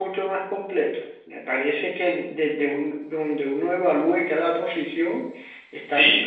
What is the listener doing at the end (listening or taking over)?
taking over